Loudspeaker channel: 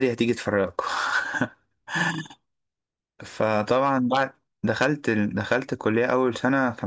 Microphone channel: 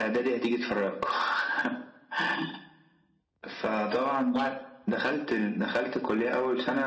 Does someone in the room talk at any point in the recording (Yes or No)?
No